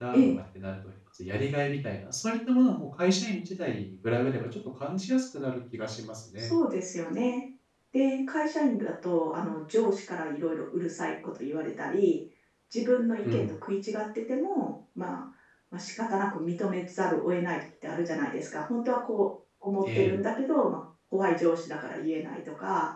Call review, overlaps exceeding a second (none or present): none